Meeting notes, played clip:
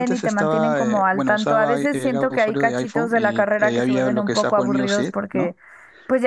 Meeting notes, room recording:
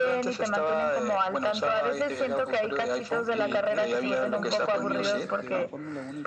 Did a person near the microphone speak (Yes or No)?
Yes